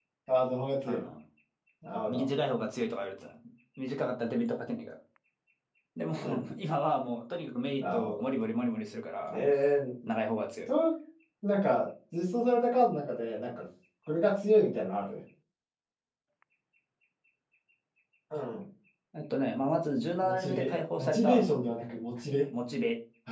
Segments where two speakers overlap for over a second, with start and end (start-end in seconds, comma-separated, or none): 20.2-21.5